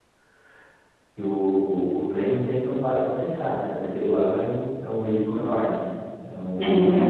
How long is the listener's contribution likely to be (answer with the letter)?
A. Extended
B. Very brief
B